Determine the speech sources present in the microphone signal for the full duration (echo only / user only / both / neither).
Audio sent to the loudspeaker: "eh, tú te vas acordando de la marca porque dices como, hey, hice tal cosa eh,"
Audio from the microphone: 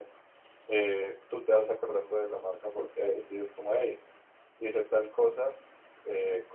echo only